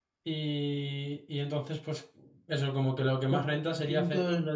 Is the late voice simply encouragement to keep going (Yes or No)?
No